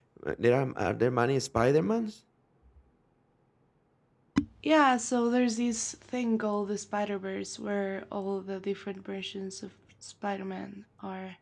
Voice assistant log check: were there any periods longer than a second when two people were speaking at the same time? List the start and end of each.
none

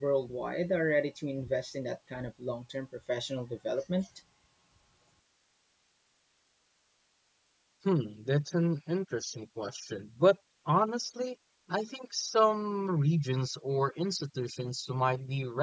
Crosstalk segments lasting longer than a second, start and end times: none

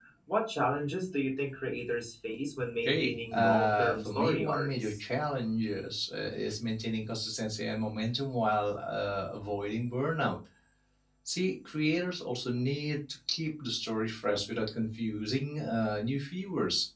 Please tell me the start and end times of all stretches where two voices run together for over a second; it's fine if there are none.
2.9-5.0

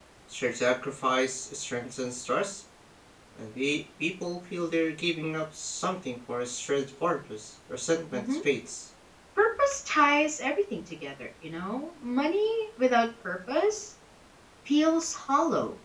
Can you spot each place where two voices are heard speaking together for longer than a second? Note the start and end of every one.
none

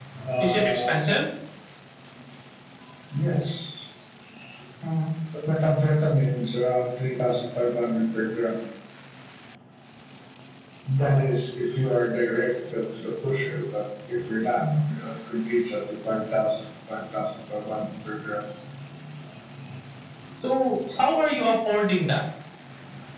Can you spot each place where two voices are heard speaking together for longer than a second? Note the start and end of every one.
none

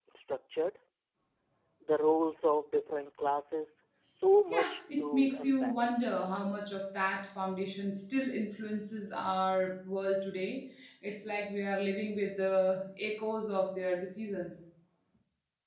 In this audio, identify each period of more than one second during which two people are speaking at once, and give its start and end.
4.5-5.7

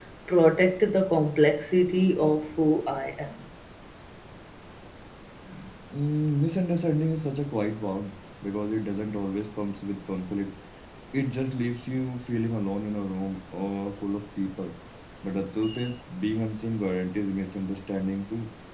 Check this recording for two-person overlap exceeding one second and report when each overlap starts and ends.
none

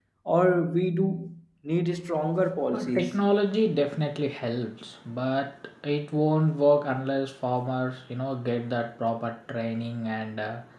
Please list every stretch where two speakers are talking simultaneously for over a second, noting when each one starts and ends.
none

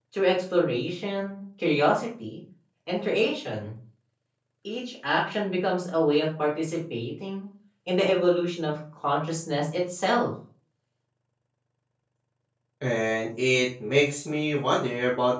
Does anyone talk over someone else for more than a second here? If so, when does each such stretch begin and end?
none

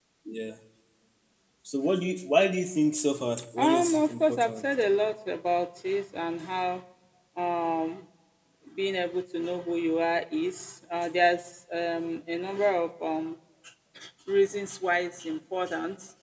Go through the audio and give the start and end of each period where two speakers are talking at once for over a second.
3.6-4.8

